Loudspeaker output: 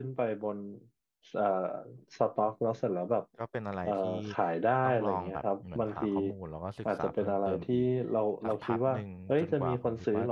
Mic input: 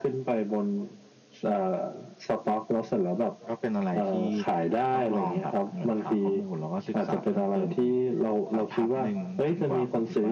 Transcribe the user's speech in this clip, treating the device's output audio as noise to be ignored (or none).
none